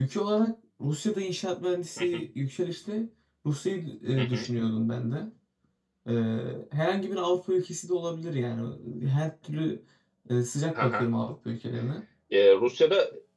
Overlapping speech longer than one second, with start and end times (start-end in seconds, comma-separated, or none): none